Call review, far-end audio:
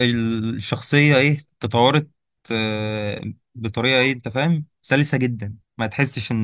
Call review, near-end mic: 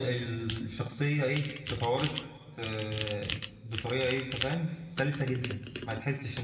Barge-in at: none

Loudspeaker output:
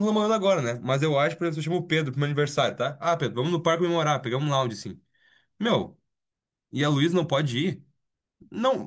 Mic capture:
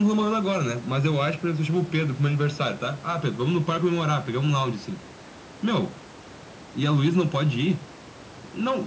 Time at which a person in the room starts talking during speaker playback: none

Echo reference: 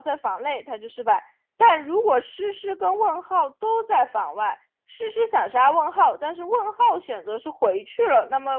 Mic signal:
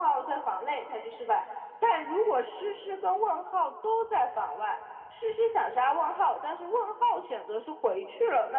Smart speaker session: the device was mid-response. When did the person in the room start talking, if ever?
none

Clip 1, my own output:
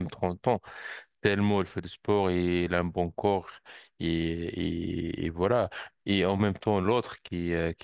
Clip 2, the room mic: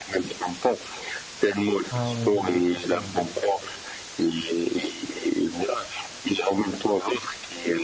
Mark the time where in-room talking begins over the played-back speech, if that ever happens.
1.9 s

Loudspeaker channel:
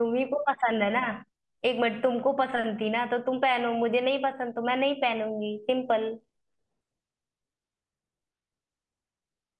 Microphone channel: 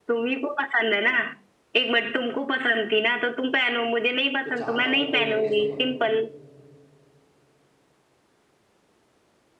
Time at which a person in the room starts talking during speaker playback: 4.4 s

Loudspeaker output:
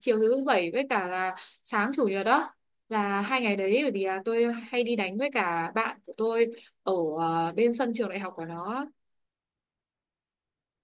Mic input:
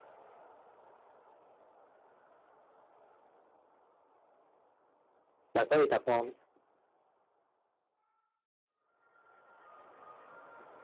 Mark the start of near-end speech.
5.5 s

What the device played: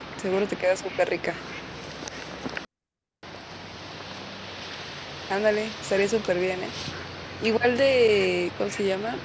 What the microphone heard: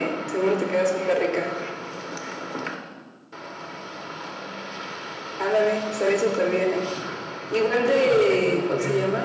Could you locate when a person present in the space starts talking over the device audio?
7.8 s

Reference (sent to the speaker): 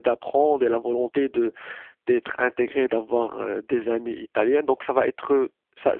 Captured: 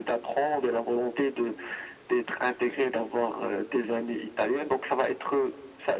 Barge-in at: none

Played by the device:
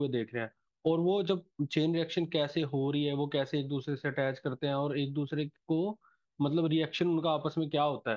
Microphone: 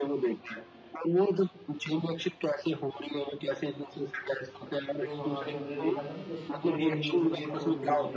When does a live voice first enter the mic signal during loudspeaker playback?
5.0 s

